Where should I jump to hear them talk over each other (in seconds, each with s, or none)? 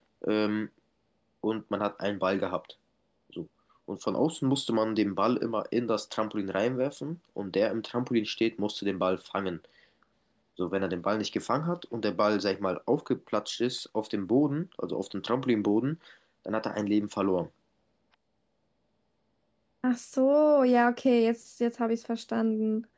none